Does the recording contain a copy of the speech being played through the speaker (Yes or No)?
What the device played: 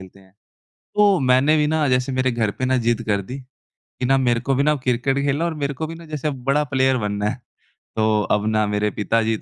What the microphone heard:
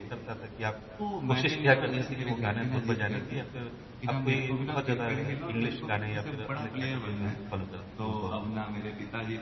Yes